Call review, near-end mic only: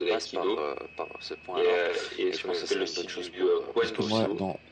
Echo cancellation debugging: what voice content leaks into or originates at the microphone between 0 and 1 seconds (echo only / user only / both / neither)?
echo only